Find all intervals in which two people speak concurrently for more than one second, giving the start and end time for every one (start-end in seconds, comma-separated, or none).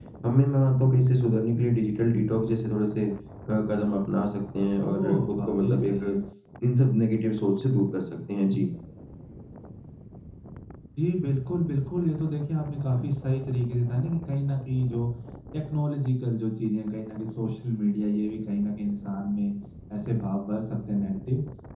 4.9-6.2